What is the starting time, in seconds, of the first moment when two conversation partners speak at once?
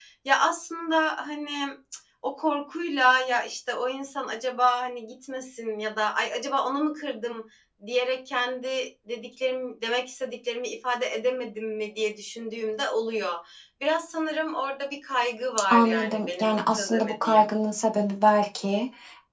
15.7 s

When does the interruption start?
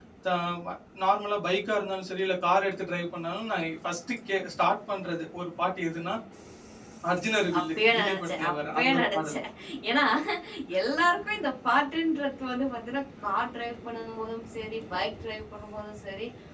7.6 s

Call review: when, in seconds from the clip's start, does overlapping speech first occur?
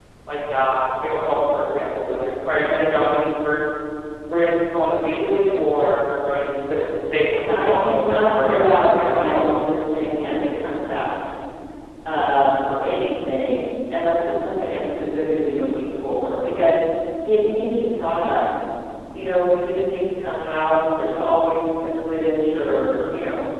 7.4 s

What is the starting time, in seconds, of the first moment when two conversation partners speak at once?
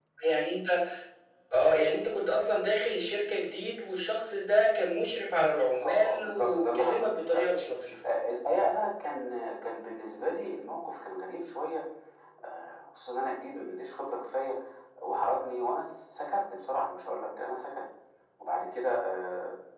5.8 s

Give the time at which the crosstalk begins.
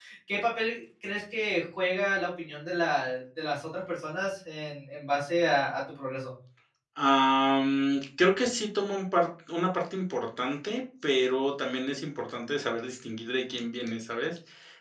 none

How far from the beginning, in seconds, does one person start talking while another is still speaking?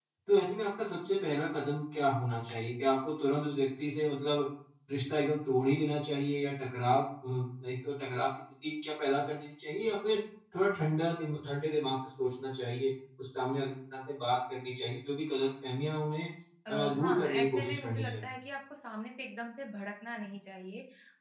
16.7 s

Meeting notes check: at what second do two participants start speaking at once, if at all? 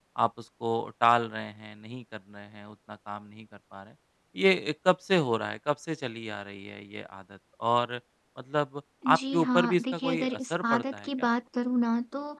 9.1 s

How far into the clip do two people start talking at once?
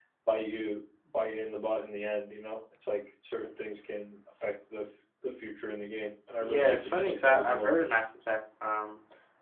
6.4 s

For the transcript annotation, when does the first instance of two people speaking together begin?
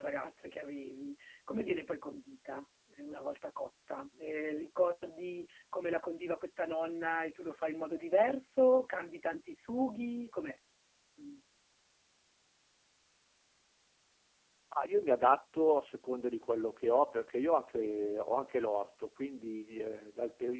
none

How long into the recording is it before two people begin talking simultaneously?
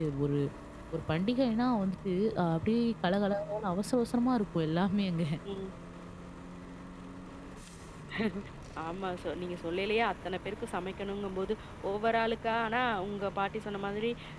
none

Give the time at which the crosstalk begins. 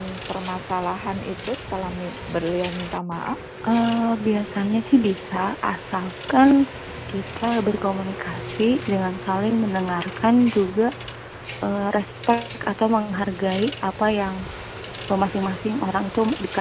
none

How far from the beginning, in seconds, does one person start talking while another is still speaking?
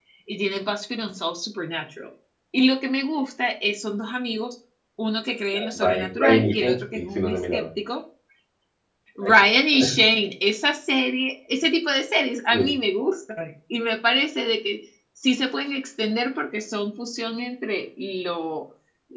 5.5 s

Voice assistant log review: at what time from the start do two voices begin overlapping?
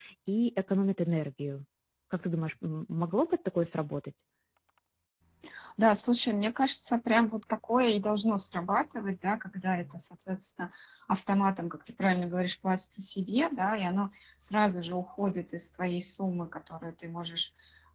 none

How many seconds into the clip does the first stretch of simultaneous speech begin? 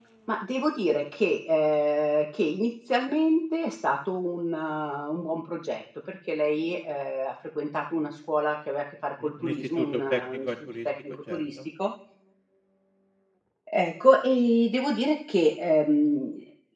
9.2 s

